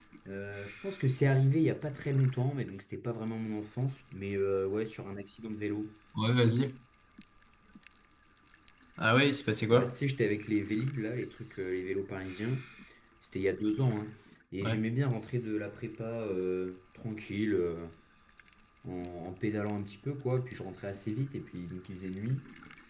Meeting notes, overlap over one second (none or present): none